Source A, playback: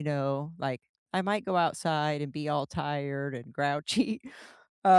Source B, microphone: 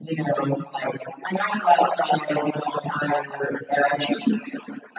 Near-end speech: none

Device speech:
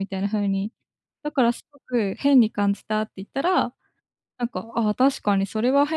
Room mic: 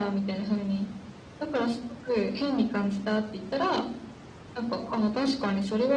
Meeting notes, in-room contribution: none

